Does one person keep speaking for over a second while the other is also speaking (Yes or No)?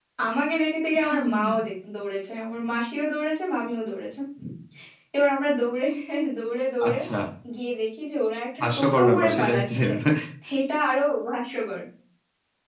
Yes